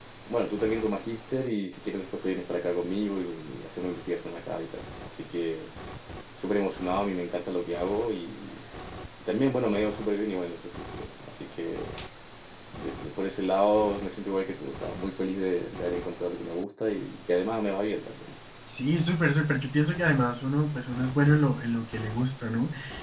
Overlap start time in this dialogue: none

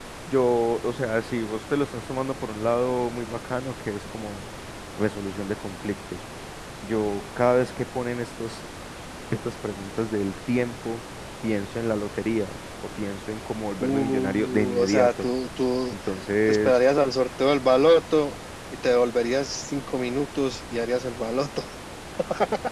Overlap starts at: 13.8 s

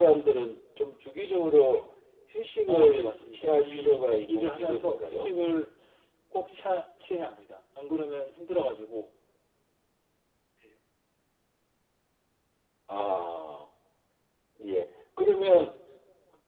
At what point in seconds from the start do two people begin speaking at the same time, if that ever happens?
2.7 s

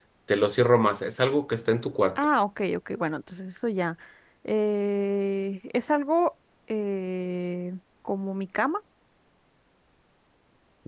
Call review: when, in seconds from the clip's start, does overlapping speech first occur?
none

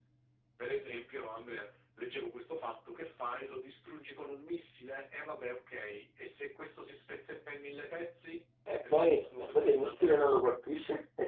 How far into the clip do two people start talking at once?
8.9 s

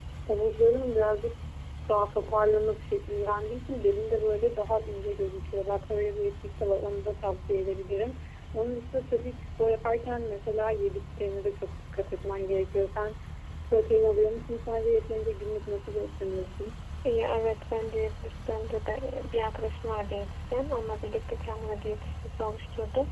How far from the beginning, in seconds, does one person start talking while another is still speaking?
none

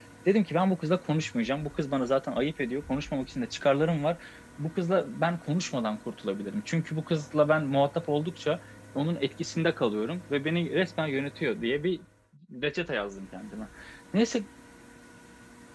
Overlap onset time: none

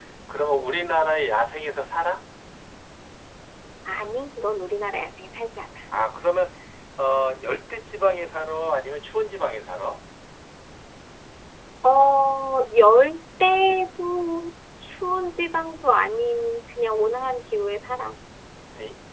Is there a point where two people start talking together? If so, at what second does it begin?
none

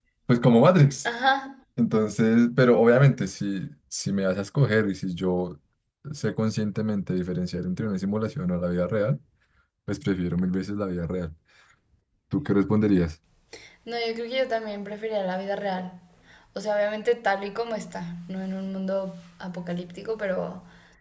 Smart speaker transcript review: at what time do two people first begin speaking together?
none

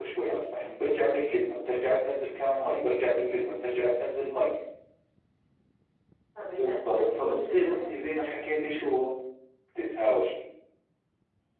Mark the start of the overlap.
6.5 s

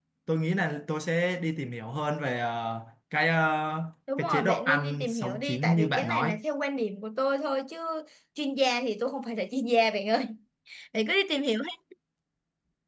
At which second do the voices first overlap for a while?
4.2 s

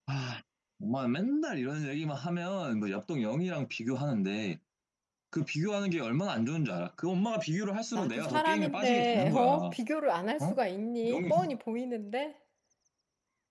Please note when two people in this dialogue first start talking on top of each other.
8.0 s

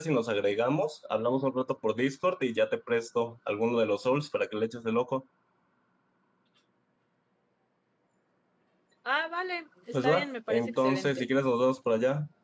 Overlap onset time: 9.9 s

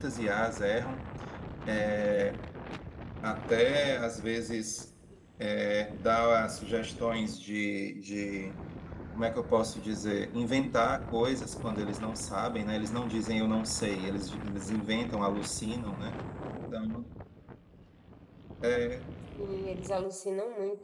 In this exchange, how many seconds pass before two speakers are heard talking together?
none

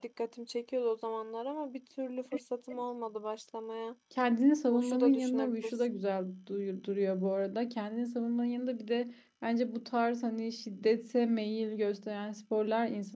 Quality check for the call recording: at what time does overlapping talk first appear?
4.7 s

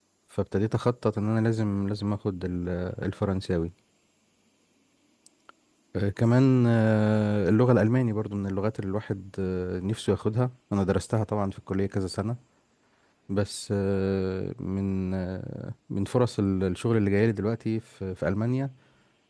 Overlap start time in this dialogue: none

